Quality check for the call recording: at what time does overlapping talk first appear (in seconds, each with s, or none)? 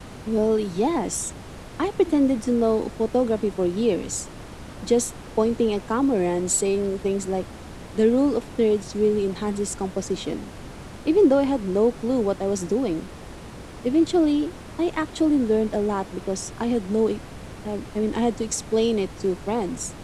none